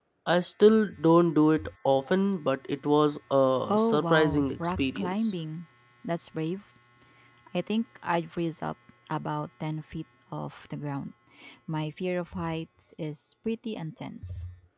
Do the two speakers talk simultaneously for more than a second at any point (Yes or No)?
Yes